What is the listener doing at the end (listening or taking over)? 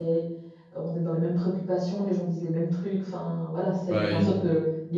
listening